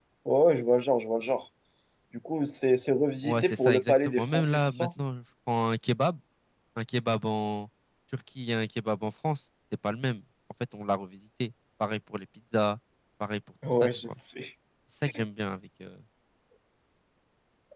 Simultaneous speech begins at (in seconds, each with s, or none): 3.2 s